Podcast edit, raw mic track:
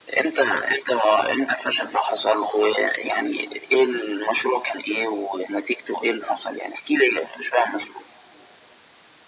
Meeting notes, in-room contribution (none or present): none